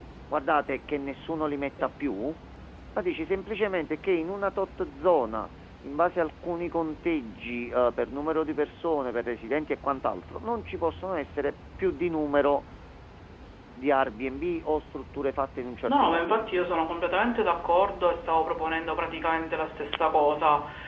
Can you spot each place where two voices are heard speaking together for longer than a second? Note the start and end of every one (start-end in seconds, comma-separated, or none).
none